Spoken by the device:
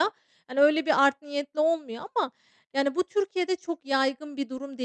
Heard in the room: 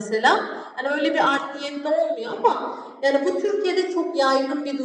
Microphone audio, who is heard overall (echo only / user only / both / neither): echo only